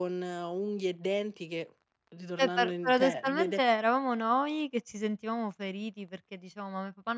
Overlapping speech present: Yes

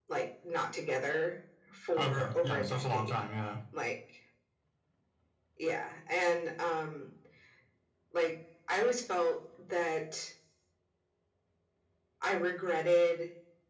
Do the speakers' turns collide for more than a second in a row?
Yes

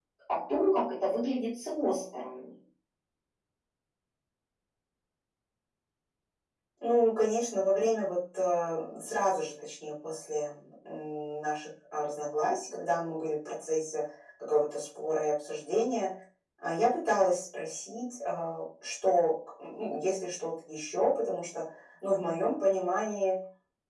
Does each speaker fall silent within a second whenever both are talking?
Yes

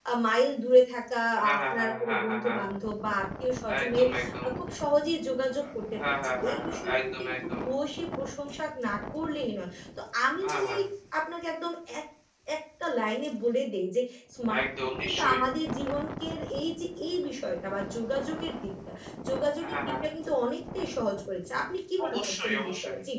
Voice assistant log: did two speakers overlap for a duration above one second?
Yes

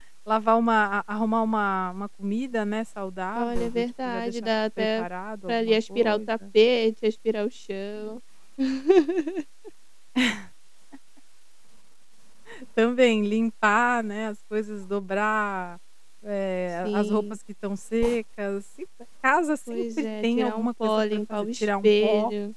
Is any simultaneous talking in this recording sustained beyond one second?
Yes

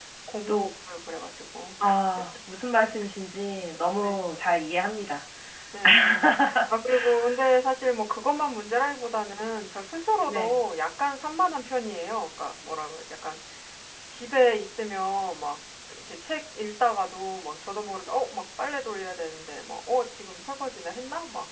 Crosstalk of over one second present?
No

